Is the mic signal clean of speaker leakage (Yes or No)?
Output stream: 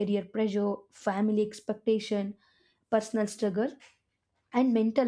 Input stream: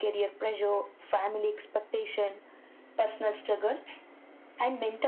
No